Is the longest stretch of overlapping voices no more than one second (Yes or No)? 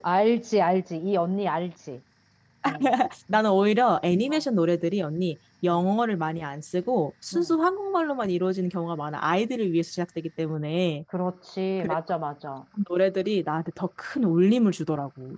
Yes